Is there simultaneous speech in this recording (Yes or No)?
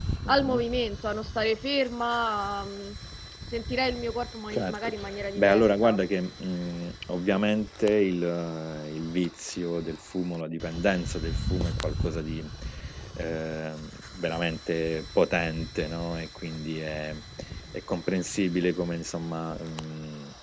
Yes